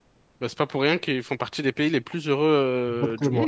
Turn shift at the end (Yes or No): Yes